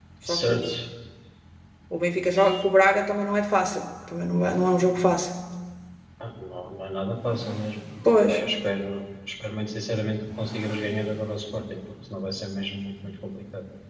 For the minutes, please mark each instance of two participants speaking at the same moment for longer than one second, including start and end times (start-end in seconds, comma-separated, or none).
none